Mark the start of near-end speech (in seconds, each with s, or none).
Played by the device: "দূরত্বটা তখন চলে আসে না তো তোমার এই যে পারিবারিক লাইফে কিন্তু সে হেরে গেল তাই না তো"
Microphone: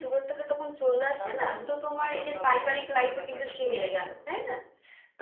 1.2 s